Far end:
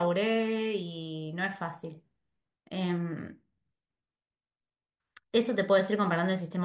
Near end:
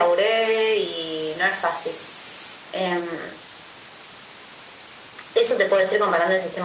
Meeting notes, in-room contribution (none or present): none